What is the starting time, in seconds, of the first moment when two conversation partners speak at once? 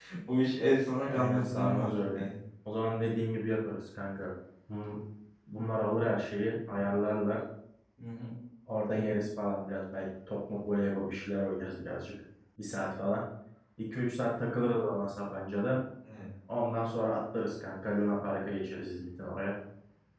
1.1 s

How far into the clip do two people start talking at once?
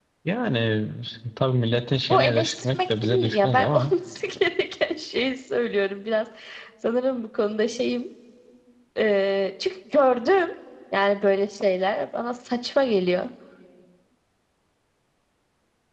2.0 s

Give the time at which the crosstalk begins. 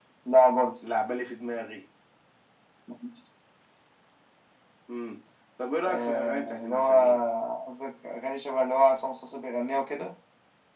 5.8 s

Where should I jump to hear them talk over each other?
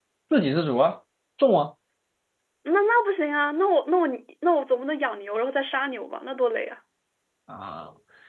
none

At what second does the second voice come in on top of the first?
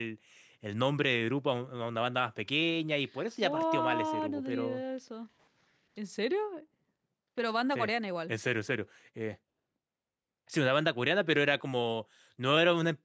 3.4 s

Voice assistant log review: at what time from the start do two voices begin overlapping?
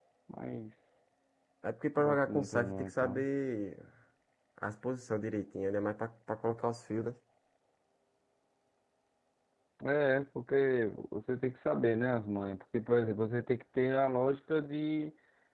2.0 s

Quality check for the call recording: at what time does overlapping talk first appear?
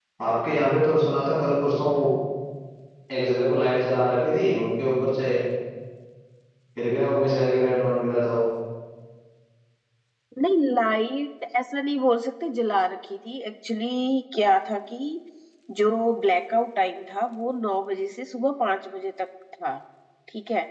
none

